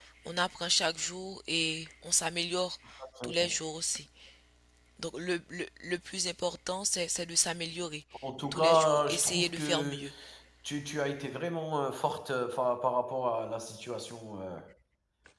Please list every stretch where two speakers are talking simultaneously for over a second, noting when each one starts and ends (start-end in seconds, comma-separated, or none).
8.5-10.0